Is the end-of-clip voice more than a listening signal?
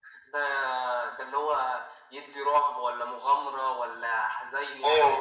Yes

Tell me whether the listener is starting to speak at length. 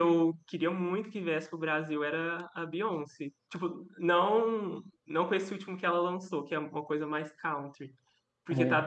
No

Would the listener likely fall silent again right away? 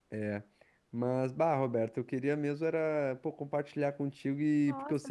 No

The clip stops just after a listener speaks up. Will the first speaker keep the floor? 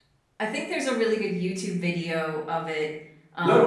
No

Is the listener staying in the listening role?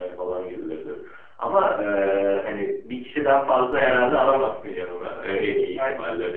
Yes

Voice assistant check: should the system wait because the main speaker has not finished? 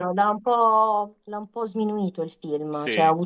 Yes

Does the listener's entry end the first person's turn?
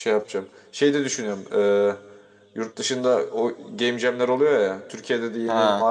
No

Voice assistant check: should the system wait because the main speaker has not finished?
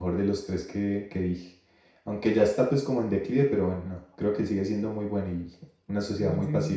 No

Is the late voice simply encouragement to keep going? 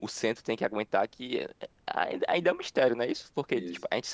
Yes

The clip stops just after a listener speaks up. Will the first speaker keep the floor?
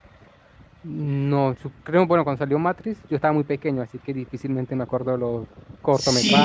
No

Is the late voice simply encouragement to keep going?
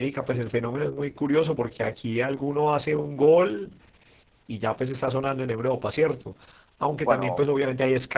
Yes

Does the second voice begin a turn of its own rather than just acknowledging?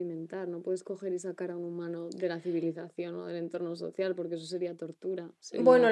Yes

